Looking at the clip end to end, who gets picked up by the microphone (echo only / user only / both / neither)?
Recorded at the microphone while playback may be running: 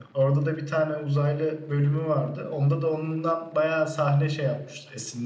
user only